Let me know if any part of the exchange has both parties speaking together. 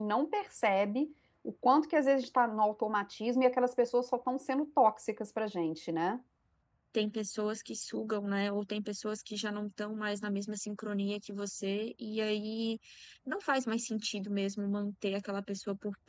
No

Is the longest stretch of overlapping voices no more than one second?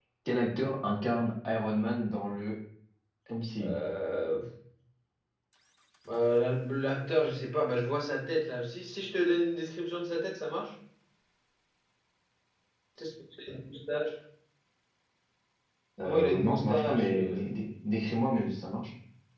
No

